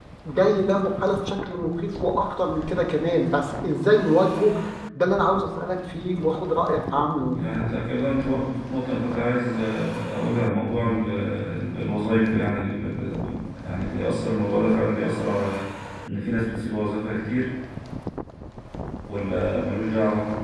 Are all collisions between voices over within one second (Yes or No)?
Yes